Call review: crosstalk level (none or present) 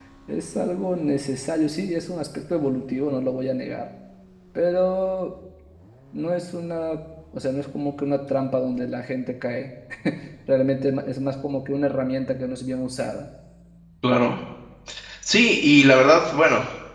none